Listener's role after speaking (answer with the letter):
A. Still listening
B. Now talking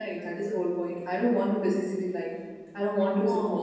A